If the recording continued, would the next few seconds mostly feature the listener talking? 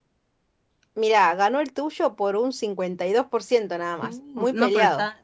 Yes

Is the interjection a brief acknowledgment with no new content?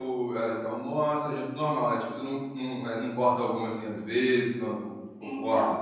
No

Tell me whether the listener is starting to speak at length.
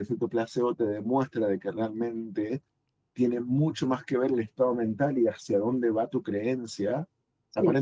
No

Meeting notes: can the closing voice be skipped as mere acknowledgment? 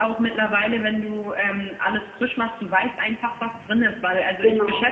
Yes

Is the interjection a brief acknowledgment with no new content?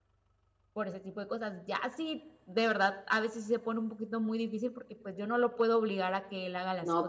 Yes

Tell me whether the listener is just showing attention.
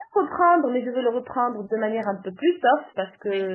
Yes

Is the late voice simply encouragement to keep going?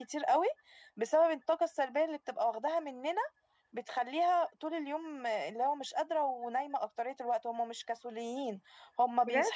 Yes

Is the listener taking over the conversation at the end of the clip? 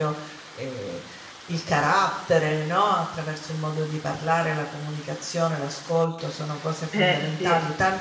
No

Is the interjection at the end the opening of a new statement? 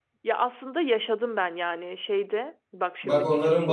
Yes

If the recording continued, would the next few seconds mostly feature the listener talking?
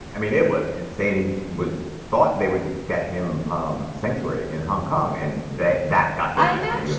Yes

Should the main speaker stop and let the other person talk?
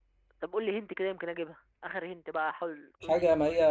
Yes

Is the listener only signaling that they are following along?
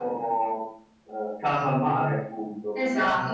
No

